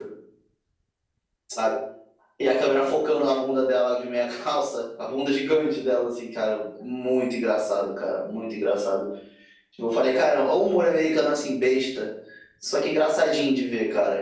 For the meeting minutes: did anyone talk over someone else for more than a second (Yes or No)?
No